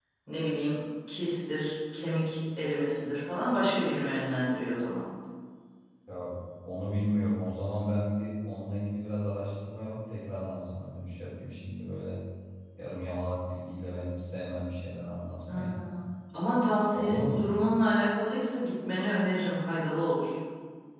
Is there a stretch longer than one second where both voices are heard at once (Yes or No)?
No